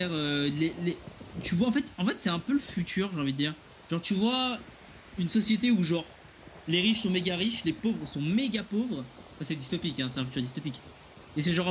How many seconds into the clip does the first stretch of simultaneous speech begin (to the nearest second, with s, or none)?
none